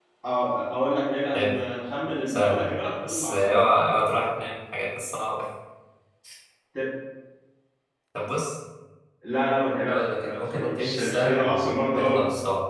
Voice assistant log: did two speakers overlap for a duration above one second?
Yes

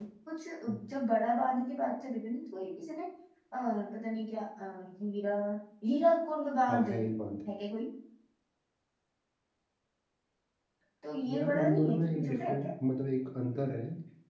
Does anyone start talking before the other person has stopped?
Yes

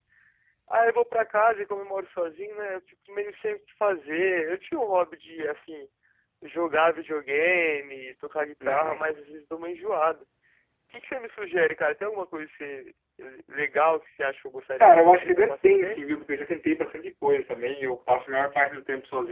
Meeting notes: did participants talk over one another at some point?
Yes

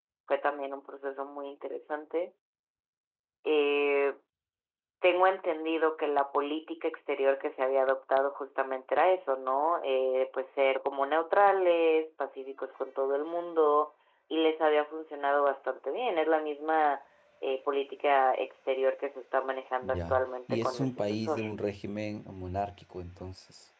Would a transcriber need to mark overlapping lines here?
Yes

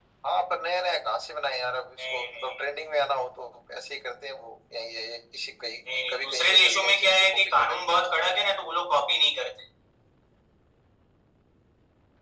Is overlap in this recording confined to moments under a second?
No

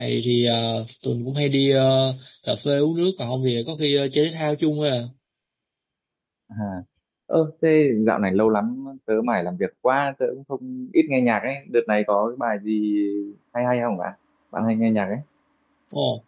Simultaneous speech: No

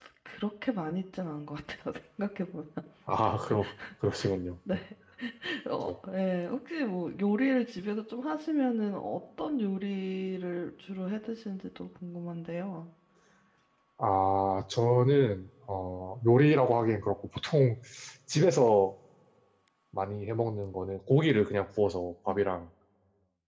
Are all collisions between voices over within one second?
Yes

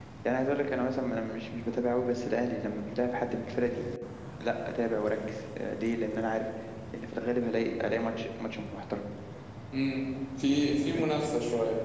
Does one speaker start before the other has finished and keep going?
No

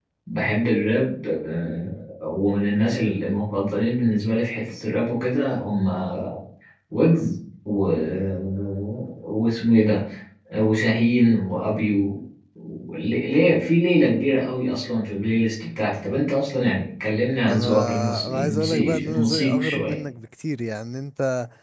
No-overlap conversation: No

